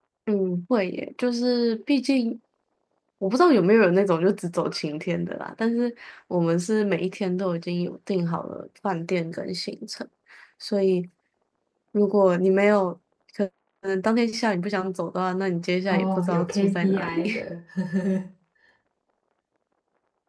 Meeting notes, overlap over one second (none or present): present